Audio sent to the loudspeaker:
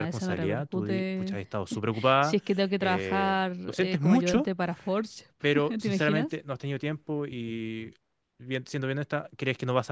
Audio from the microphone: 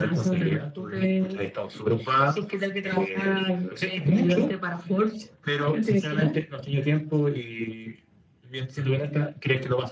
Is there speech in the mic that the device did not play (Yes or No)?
No